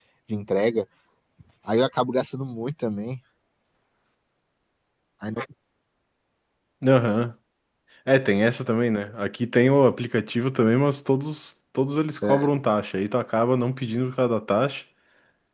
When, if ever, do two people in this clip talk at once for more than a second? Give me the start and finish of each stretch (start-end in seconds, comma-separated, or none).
none